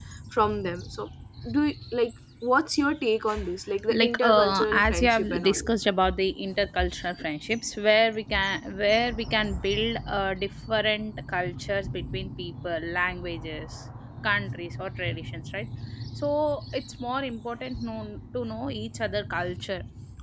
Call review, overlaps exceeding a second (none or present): present